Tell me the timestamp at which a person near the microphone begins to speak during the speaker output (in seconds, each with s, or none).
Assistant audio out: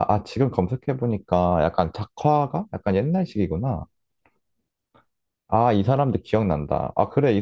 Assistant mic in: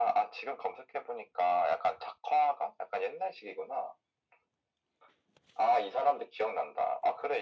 none